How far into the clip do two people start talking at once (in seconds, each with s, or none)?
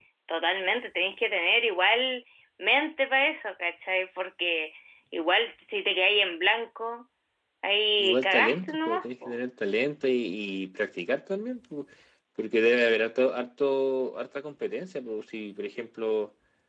8.0 s